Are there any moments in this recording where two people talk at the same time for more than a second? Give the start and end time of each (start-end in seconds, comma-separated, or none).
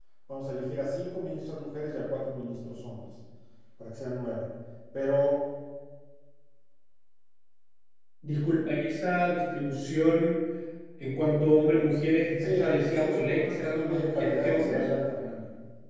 12.4-14.8